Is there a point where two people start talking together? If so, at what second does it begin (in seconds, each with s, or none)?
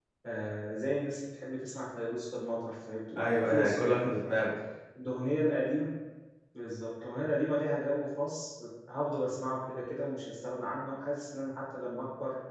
3.1 s